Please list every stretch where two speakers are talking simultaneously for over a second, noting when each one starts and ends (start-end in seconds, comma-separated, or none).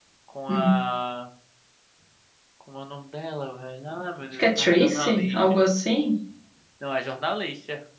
4.3-5.6